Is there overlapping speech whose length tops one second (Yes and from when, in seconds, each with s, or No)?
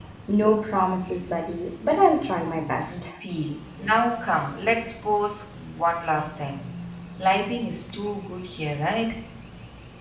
No